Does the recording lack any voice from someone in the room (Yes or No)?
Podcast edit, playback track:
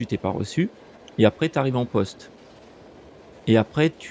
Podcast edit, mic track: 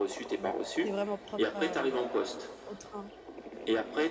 No